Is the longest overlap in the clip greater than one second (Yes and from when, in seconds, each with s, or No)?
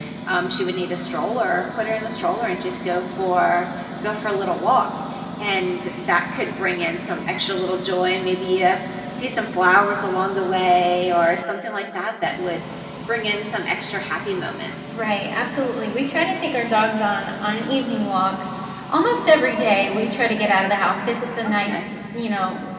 No